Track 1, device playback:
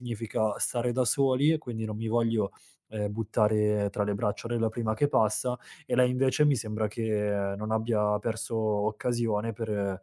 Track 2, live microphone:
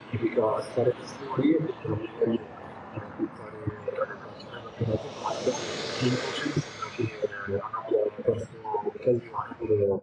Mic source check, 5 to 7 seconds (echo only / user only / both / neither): echo only